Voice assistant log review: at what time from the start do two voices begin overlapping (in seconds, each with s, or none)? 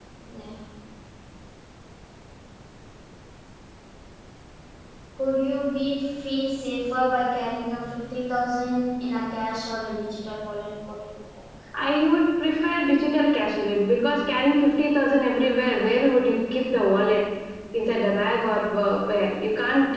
none